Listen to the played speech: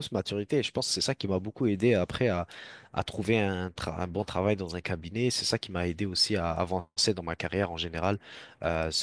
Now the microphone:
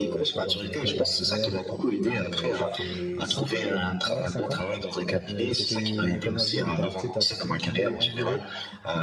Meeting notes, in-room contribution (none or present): present